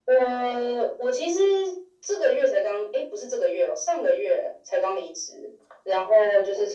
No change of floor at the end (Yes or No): Yes